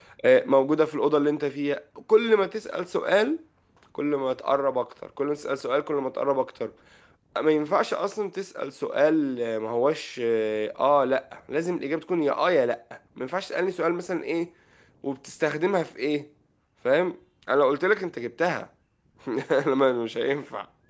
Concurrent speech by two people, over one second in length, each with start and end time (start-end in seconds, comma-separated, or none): none